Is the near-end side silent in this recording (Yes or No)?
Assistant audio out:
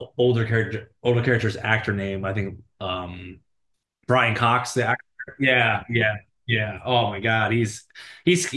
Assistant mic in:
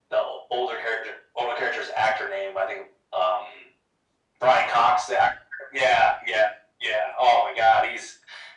Yes